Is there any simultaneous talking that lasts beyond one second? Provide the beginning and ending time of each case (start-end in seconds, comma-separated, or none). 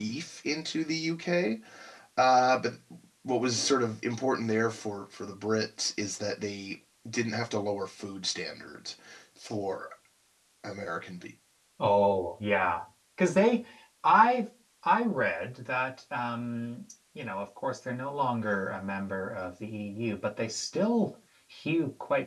none